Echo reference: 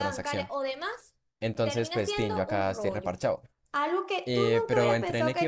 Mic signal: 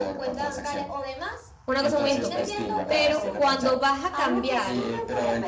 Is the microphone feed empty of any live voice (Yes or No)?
No